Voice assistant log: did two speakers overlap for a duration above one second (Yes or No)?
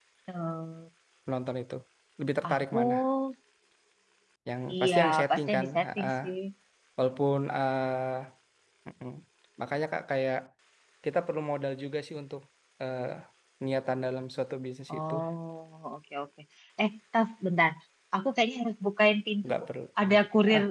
Yes